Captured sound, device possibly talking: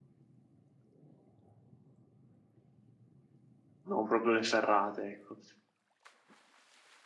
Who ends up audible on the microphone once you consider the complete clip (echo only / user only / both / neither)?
user only